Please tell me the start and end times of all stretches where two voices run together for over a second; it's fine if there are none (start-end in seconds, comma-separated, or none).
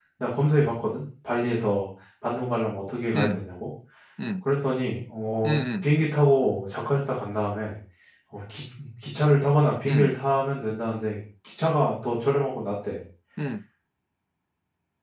none